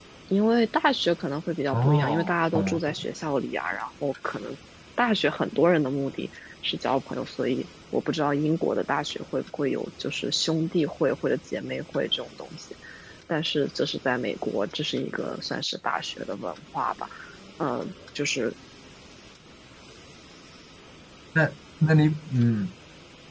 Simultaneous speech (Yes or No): Yes